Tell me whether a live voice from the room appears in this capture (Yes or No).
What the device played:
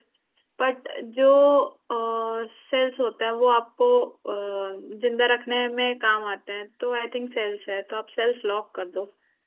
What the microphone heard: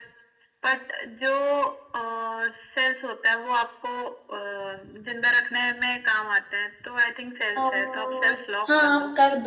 Yes